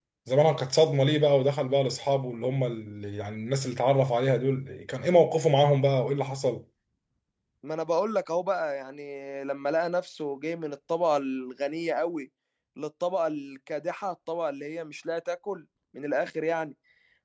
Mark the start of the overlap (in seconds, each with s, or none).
none